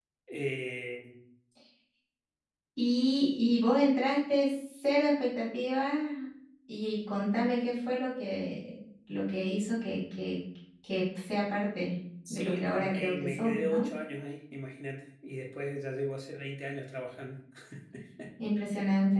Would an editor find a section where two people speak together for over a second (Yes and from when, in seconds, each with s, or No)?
Yes, from 12.2 s